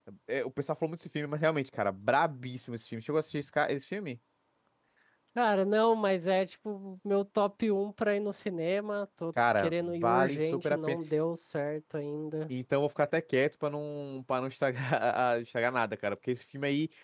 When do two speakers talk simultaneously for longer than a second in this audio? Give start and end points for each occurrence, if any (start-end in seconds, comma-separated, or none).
9.6-11.0